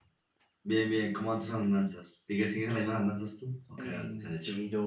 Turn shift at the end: Yes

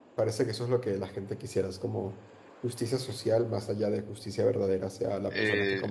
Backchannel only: No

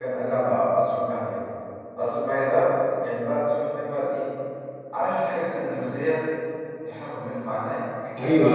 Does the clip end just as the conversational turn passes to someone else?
Yes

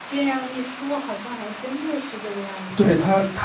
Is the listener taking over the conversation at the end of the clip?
Yes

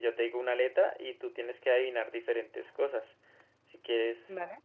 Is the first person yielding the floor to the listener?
No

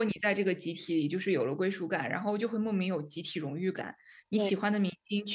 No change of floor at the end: Yes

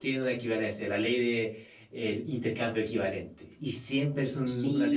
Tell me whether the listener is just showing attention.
No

